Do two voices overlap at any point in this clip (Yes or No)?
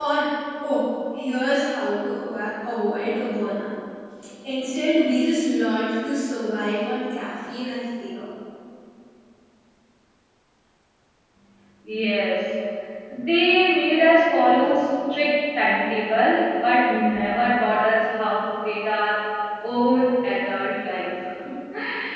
No